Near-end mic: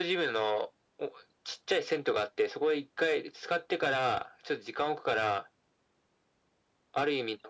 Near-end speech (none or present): none